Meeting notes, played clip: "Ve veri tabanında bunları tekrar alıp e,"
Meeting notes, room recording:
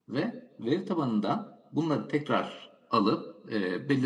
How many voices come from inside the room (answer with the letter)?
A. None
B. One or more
A